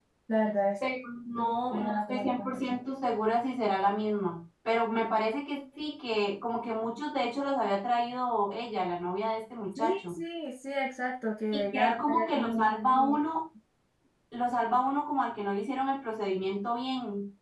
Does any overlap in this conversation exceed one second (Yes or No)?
Yes